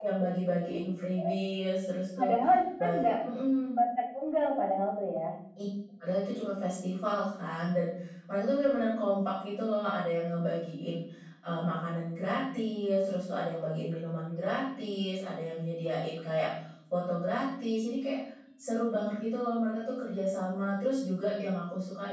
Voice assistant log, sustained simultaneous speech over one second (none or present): none